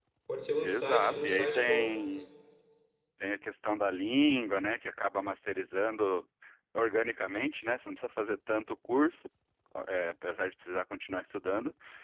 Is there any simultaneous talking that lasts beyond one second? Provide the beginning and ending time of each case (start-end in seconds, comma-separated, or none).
0.6-1.9